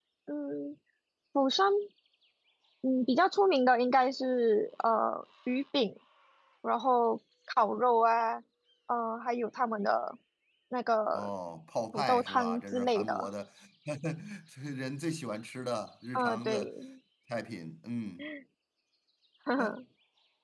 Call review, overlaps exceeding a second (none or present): present